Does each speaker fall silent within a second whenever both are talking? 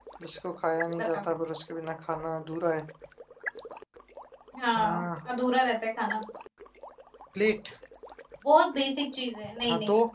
Yes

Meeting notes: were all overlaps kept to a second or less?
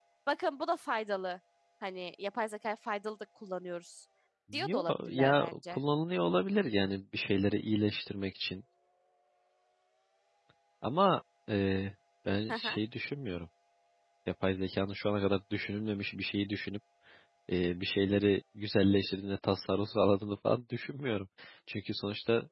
No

